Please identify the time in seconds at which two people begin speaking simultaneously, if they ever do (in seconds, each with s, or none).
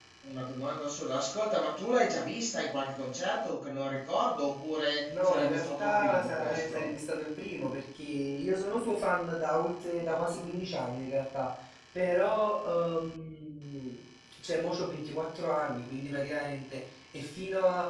5.1 s